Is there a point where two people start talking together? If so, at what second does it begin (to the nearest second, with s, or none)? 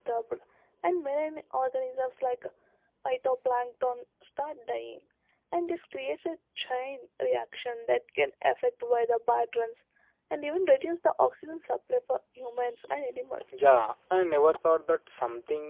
none